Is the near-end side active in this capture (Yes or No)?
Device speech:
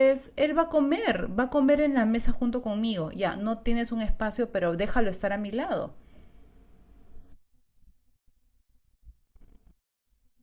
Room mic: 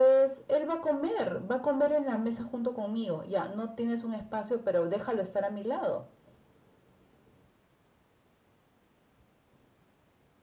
No